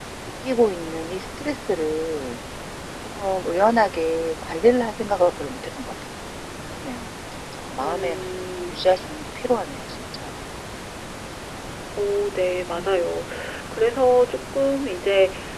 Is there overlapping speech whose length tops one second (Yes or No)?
No